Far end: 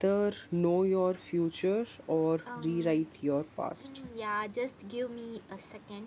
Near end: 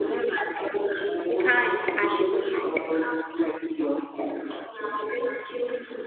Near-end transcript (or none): We can't argue with that.